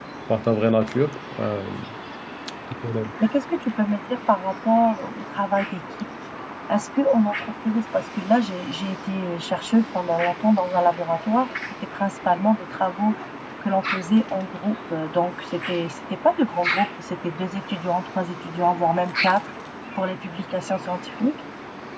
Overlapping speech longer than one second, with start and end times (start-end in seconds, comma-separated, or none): none